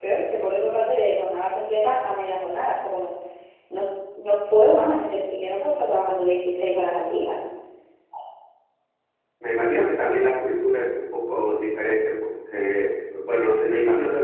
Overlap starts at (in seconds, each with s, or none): none